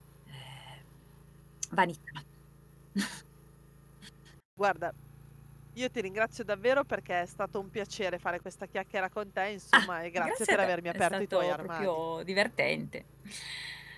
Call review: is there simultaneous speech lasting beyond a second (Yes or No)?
Yes